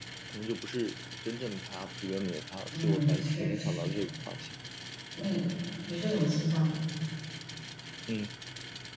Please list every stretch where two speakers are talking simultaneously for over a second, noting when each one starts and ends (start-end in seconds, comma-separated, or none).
2.7-4.0